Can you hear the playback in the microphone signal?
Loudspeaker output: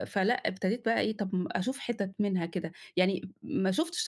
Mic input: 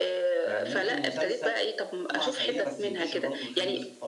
Yes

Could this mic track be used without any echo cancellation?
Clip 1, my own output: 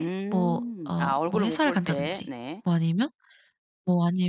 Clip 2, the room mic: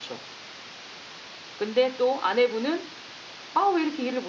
Yes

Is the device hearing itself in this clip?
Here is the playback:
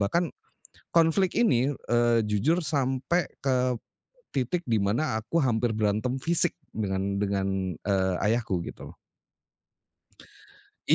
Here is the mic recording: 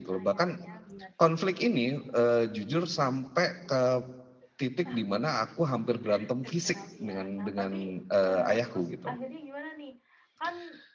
Yes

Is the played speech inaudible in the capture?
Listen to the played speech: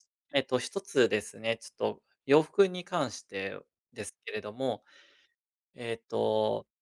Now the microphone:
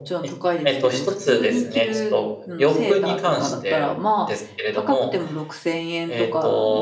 No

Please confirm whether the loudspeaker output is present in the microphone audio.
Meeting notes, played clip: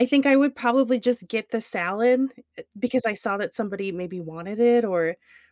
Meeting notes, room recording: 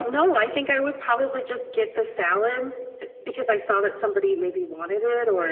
Yes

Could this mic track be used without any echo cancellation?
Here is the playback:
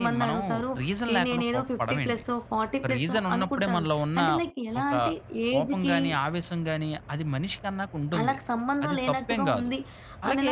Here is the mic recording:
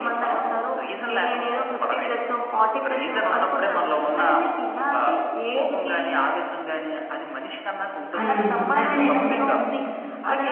No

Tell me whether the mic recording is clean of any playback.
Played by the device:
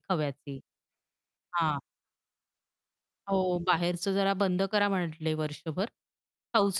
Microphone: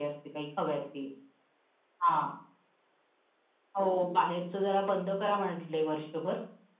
No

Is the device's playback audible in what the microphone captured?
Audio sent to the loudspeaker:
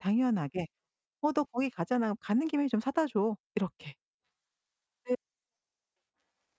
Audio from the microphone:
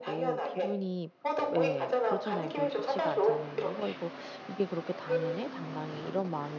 Yes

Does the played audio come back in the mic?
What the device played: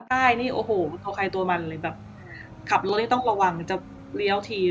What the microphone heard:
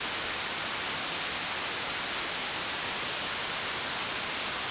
No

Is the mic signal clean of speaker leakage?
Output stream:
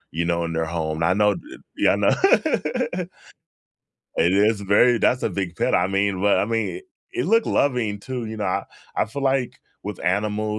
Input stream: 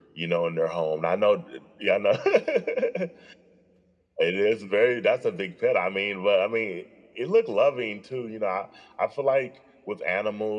No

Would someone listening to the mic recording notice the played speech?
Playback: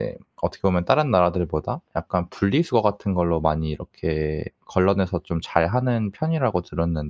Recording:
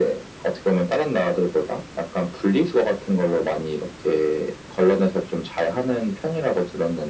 Yes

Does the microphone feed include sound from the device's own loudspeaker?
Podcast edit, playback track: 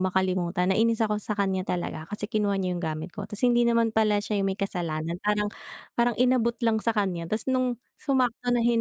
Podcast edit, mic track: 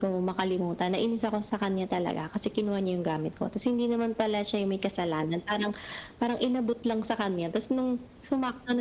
Yes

